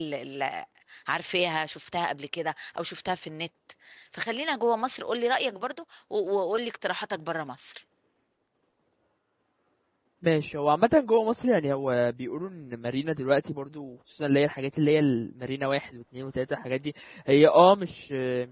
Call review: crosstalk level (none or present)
none